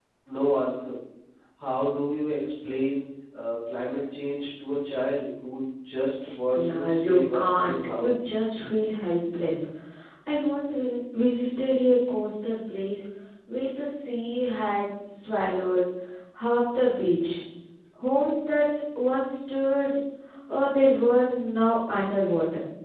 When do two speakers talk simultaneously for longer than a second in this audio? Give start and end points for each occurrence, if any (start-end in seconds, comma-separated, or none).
6.5-8.2